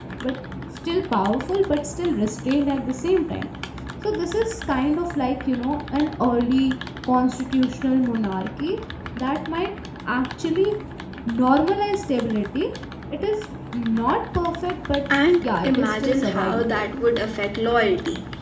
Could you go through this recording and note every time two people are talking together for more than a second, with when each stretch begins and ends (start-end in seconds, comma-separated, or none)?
15.4-16.8